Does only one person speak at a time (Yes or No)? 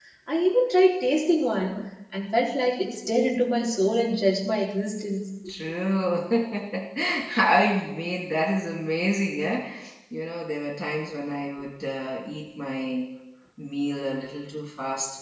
Yes